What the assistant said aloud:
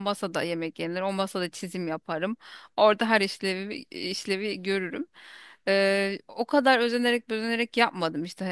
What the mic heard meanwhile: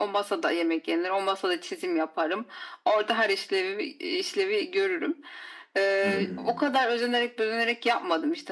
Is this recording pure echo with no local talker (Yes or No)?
No